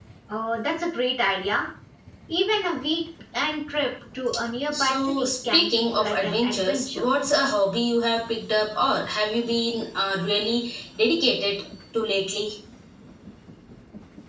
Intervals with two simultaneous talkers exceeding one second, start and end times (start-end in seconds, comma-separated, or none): 4.7-7.0